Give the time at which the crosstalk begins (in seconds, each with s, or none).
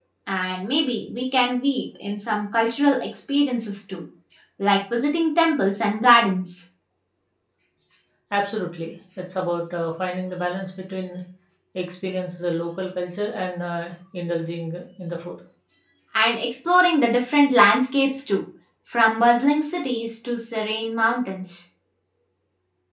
none